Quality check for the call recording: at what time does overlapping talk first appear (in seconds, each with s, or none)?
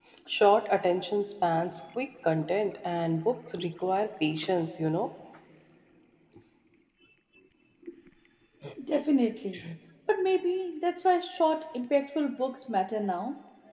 none